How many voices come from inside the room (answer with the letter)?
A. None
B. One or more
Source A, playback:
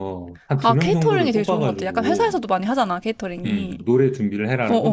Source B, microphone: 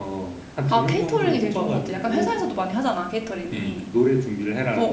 A